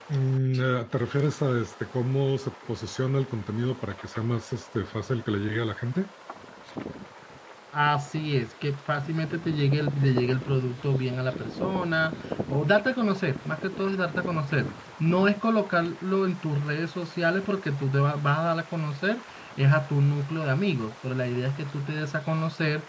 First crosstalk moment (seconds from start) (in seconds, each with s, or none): none